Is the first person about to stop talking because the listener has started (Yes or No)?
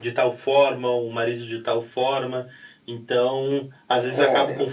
No